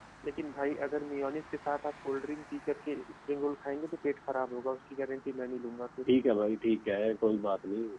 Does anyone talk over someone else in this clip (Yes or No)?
No